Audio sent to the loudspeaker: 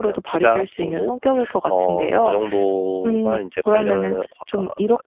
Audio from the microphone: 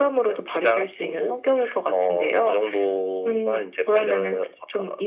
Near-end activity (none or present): none